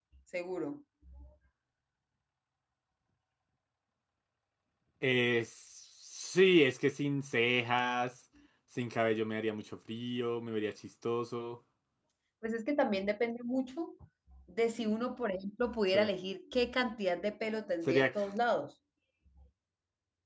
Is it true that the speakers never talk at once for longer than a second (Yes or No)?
Yes